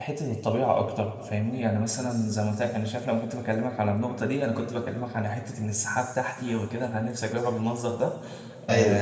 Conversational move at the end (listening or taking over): listening